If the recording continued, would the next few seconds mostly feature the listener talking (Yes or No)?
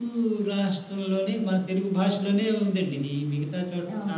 No